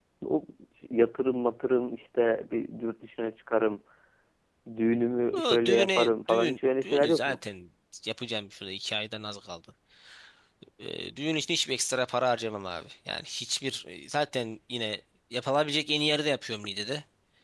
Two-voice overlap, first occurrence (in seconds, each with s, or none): 5.3 s